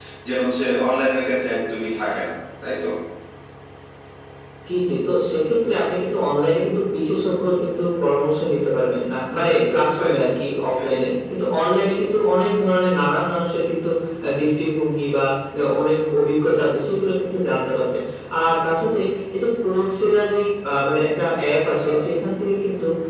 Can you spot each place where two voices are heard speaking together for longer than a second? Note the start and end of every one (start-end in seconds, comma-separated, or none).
none